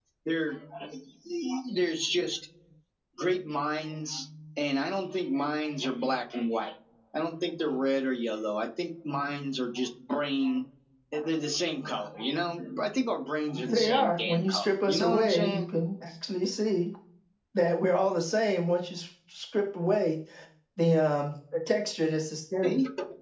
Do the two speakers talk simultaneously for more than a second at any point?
Yes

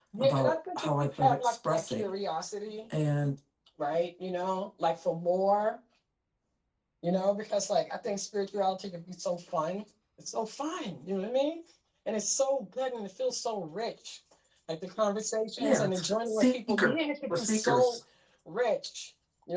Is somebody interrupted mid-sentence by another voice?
Yes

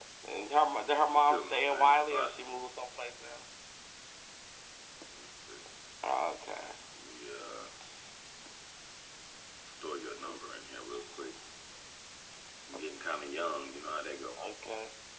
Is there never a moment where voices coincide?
No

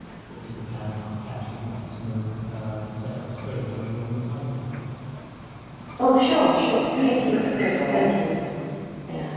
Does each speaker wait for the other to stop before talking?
No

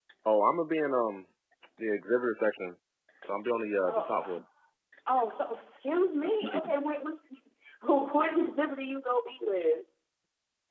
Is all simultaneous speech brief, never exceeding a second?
Yes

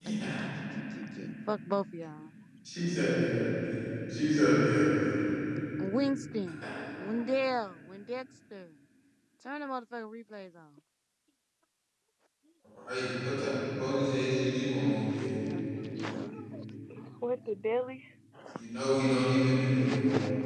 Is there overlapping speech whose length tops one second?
No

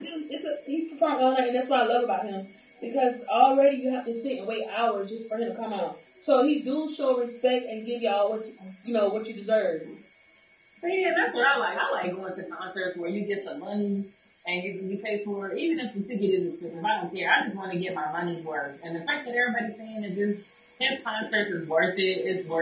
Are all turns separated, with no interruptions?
Yes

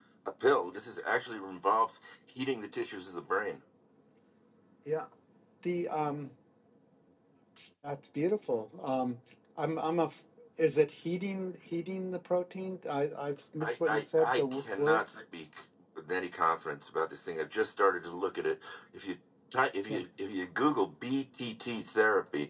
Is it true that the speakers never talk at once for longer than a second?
No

